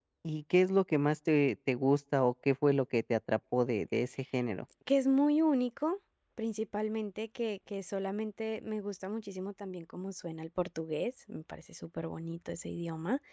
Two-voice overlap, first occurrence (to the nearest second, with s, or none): none